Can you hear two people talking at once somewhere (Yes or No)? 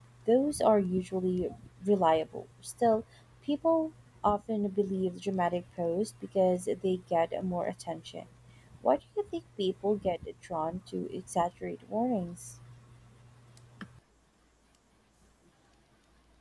No